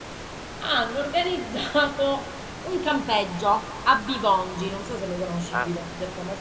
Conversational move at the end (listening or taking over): taking over